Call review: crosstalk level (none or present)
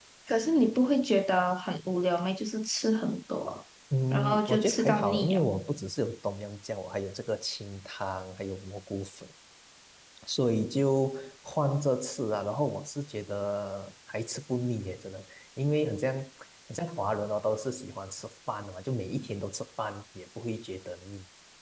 present